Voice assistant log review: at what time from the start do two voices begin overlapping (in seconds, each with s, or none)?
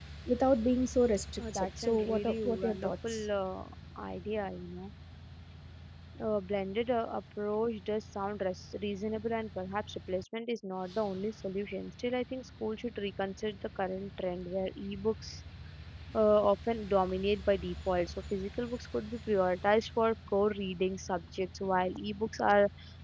1.4 s